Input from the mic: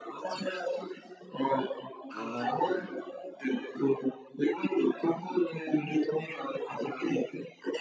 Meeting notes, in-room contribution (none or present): present